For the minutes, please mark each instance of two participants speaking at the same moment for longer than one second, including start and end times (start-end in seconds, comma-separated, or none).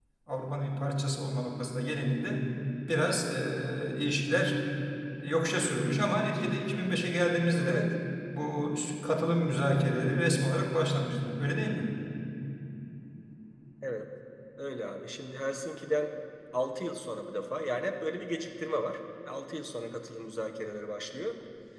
none